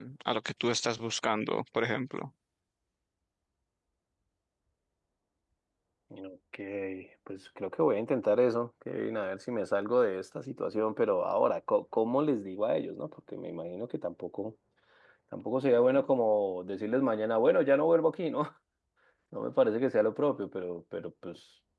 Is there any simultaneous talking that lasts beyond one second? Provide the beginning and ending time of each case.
none

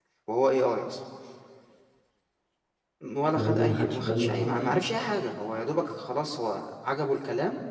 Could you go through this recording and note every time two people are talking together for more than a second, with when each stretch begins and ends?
3.4-4.8

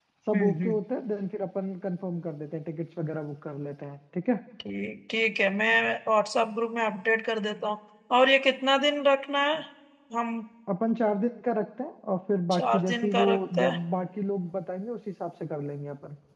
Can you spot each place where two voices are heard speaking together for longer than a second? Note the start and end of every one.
12.5-13.8

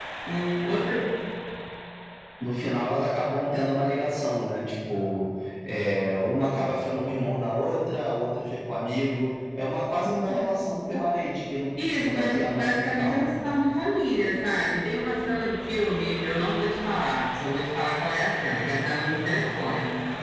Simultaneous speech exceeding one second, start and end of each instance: 11.8-13.3

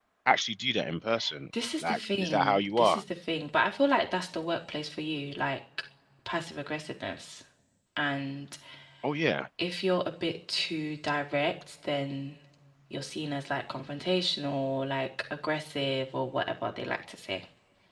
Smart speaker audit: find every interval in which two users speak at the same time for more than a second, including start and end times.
1.8-3.0

